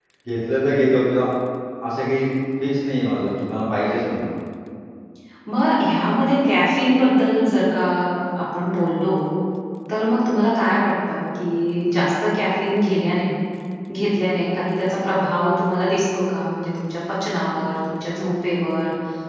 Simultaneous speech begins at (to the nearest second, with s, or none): none